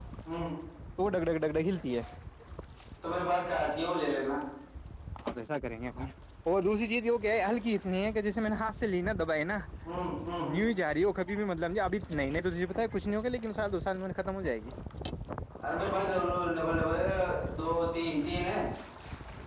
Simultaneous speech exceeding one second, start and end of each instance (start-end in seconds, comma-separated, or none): none